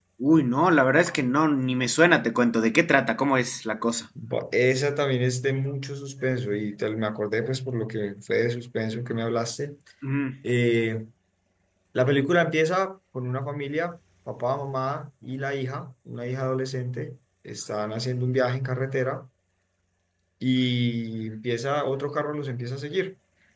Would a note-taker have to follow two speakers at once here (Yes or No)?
No